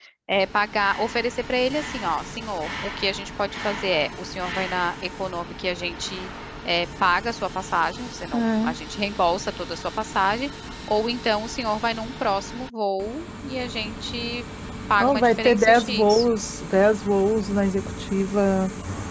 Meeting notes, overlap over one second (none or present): present